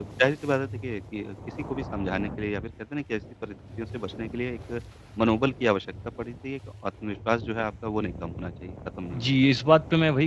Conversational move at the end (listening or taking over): taking over